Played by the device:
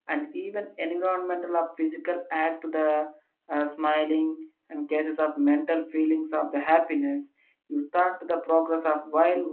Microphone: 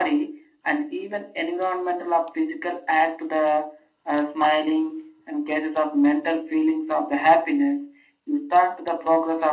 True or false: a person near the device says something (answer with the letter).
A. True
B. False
B